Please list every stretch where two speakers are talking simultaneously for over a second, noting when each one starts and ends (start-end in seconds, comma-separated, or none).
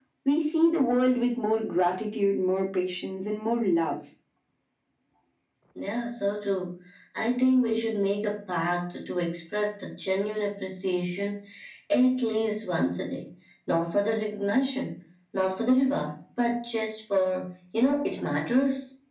none